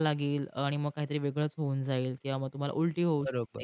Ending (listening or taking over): taking over